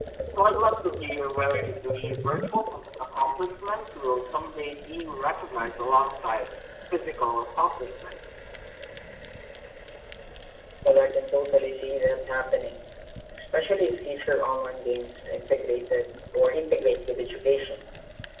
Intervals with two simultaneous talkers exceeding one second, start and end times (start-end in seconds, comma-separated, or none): none